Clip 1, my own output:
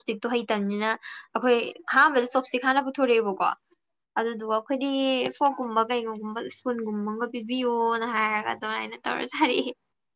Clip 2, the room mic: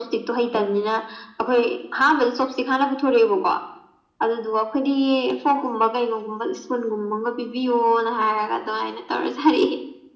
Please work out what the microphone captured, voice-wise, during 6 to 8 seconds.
echo only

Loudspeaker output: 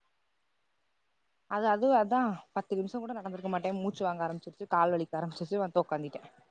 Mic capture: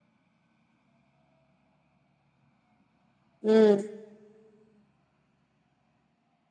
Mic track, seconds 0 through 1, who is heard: neither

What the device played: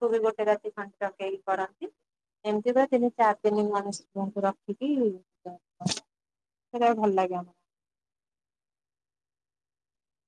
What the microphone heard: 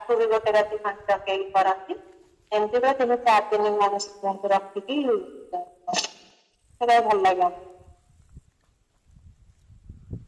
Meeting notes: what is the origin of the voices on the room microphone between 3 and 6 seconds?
echo only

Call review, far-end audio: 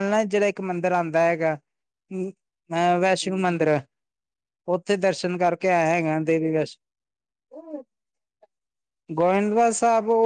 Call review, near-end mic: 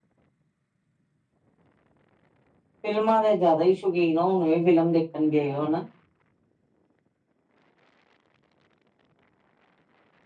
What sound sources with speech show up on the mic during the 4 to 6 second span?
user only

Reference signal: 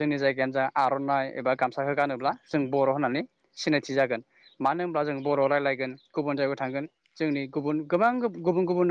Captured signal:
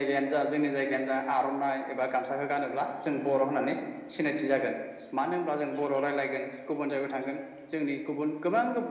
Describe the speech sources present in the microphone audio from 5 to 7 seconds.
echo only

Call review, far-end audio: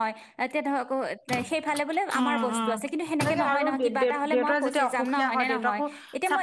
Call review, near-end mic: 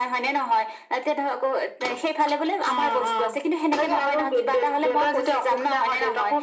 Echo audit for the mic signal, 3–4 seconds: echo only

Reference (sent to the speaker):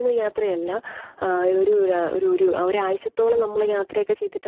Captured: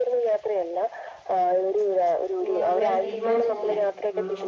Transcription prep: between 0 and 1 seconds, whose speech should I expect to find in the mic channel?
echo only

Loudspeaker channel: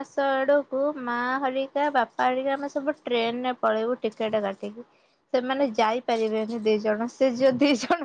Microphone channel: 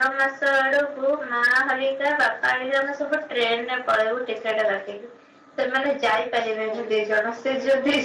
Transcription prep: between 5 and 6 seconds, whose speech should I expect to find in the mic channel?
echo only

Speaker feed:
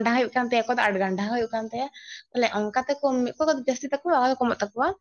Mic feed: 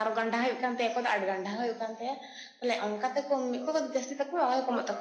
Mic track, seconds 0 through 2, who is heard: echo only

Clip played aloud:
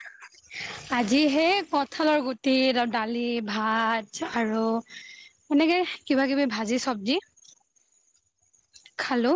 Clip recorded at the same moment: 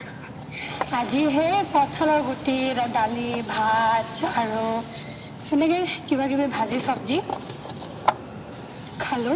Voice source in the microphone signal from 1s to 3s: echo only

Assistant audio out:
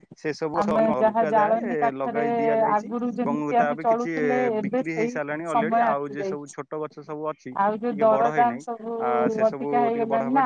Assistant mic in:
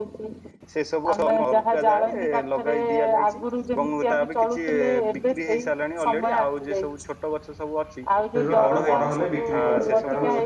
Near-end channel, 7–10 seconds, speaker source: both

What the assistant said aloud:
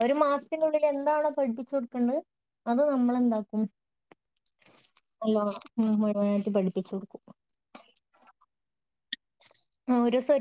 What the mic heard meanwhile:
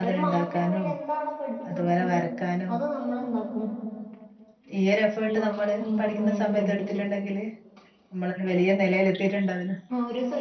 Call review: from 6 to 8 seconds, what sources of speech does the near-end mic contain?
both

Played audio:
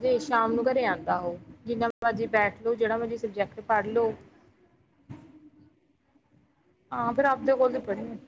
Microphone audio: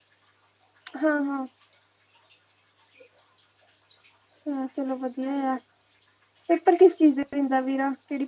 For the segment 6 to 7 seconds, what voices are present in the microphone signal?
user only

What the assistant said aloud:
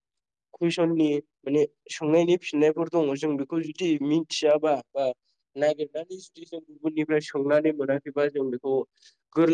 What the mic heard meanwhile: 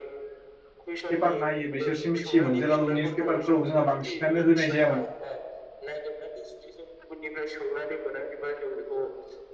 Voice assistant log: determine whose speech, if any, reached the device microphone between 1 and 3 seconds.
both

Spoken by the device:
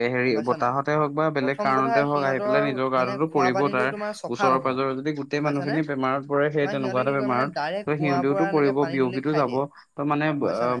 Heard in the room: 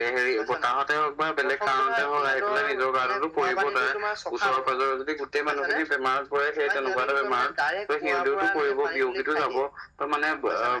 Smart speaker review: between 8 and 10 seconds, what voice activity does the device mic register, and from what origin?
echo only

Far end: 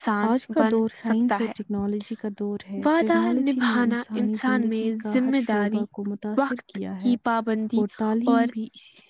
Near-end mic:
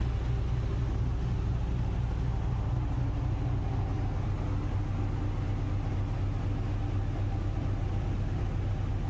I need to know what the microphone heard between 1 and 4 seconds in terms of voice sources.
neither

